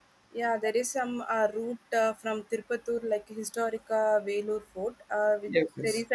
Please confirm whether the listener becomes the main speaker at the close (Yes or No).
No